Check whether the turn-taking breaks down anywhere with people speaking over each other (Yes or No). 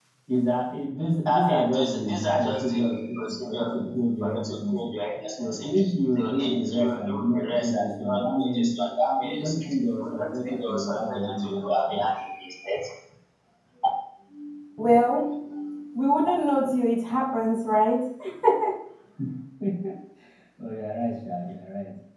Yes